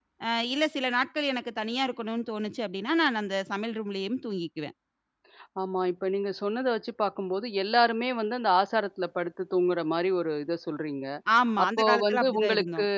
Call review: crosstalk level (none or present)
present